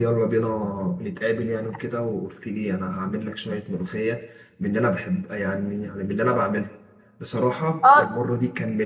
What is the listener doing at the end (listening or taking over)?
listening